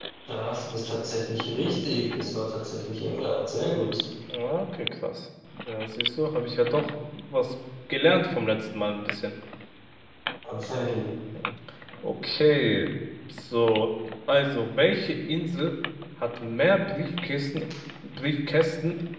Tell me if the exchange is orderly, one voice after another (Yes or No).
Yes